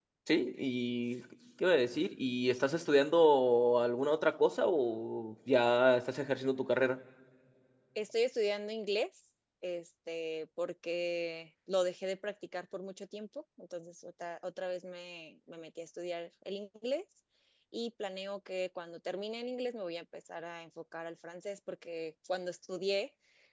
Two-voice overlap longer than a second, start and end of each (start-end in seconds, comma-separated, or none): none